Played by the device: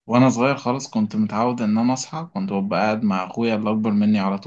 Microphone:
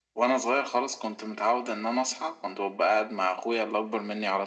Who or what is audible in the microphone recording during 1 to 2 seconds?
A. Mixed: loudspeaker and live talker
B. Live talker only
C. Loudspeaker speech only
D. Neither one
C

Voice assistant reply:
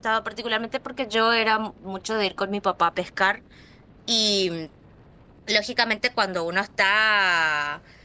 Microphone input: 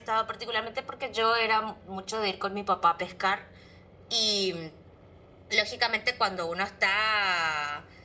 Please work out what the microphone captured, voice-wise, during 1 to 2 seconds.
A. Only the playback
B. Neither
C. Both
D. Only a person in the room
A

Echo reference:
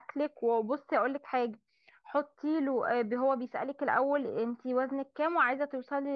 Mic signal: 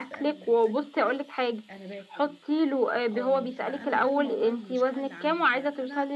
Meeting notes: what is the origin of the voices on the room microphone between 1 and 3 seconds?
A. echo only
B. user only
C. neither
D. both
D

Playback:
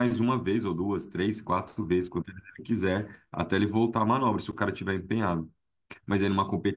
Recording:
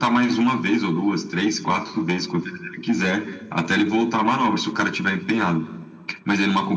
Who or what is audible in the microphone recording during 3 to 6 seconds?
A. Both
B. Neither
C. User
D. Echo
D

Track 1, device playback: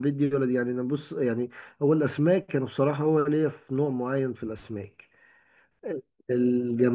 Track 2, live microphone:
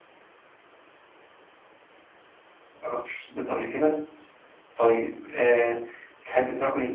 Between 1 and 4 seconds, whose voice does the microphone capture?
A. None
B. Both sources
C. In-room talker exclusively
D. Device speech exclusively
C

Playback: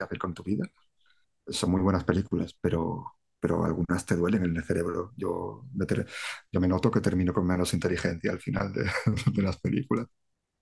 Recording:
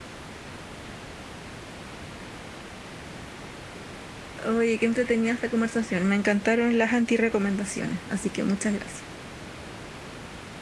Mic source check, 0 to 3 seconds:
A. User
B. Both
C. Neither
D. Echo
C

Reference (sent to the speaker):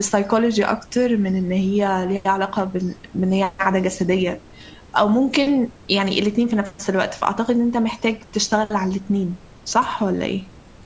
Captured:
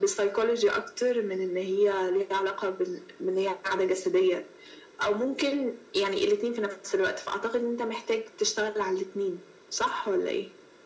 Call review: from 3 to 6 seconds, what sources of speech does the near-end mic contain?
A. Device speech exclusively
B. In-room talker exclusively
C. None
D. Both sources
A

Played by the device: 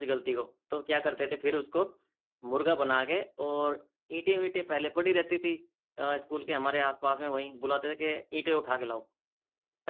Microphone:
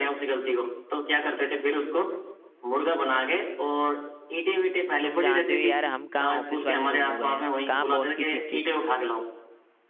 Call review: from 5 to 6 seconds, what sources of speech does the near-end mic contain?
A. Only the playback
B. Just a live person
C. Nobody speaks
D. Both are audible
D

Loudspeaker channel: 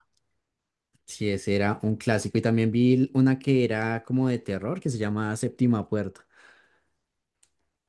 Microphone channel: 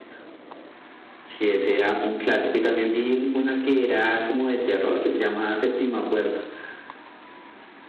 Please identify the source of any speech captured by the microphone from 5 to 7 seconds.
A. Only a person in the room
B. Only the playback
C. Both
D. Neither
B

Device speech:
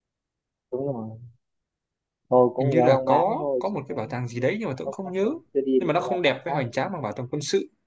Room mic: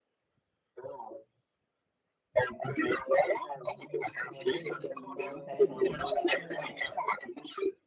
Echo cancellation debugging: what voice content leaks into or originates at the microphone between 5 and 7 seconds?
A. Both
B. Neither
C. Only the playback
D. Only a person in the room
A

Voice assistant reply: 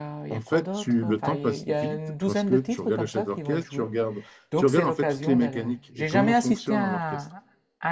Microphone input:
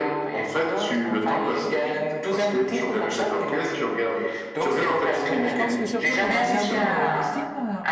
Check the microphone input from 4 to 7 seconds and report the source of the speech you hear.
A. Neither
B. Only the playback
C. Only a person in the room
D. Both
D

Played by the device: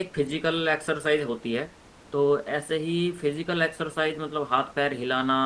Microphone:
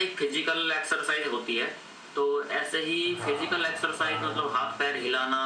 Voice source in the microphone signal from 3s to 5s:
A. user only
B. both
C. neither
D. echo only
B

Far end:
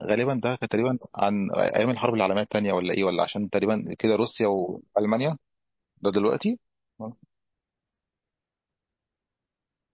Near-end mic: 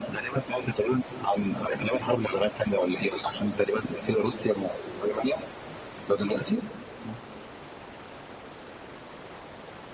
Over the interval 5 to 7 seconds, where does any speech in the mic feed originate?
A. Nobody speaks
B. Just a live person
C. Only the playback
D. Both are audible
C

